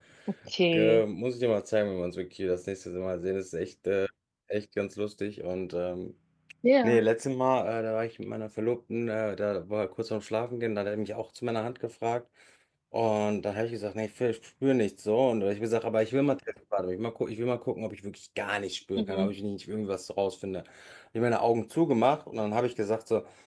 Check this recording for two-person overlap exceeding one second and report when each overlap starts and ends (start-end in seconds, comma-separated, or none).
none